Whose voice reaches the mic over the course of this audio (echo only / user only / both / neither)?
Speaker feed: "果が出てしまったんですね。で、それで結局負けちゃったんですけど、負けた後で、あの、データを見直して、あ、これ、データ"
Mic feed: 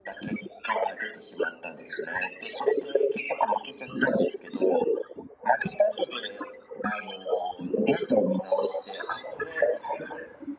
echo only